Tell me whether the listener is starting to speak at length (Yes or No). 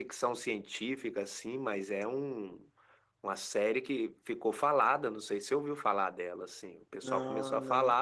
No